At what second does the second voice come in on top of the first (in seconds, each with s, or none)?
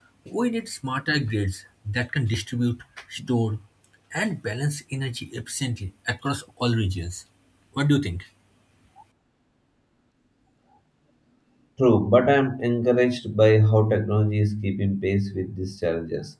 none